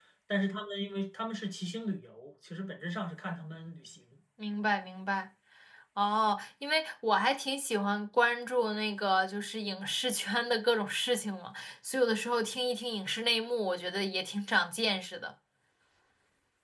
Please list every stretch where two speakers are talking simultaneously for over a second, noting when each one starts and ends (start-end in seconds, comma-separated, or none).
none